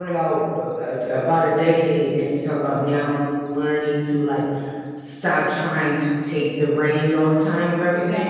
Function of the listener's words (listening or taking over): listening